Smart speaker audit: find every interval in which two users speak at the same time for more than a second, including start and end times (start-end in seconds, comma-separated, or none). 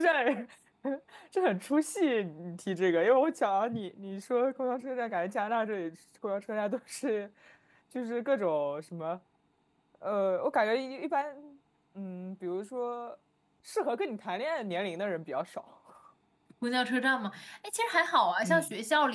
none